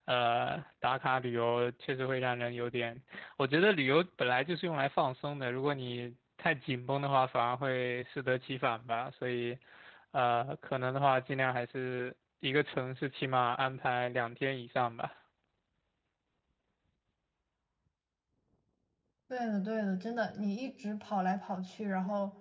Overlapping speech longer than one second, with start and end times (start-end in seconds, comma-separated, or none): none